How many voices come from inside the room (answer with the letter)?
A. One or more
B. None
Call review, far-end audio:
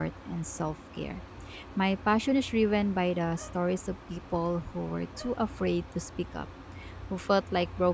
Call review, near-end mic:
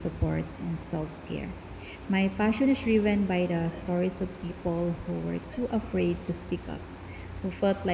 B